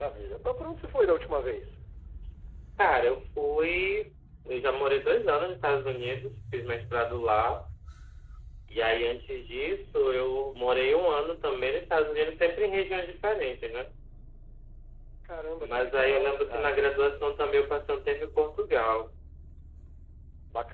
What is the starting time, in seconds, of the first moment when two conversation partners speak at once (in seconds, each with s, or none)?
15.6 s